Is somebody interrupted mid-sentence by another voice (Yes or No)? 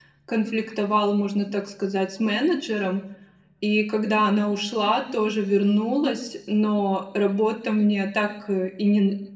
No